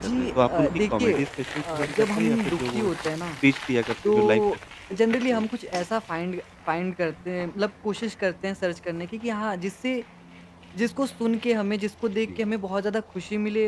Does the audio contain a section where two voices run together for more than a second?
Yes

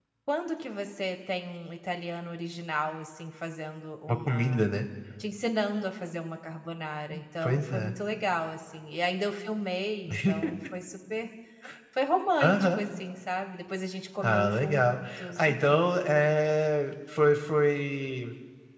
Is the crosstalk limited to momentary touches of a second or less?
No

